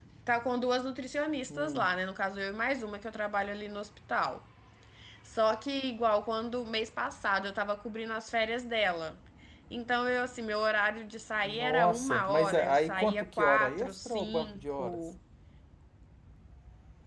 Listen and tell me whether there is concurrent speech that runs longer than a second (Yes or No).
Yes